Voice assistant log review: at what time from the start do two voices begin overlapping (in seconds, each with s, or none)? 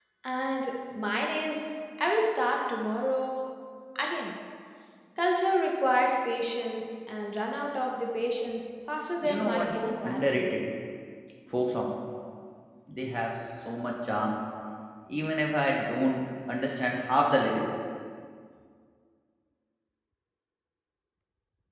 9.2 s